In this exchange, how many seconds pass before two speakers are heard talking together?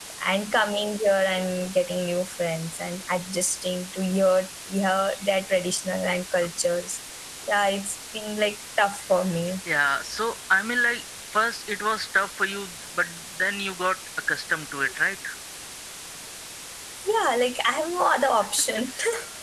none

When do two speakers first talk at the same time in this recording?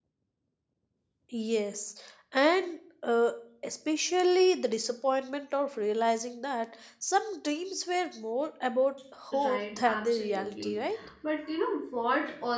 9.3 s

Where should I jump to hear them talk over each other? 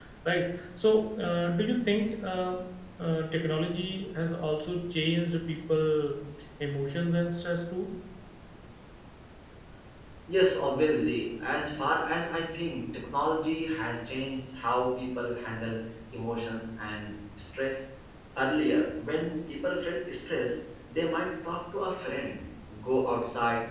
none

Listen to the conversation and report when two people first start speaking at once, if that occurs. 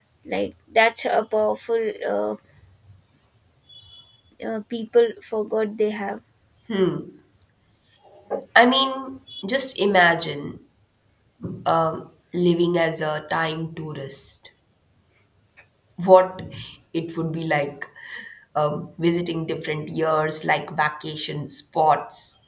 none

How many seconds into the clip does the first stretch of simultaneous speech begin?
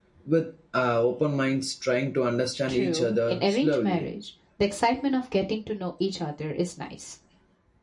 2.7 s

